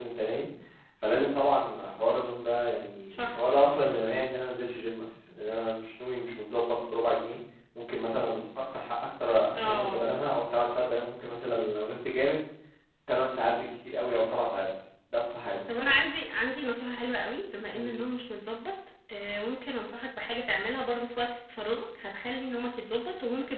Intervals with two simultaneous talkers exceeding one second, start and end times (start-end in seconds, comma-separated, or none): none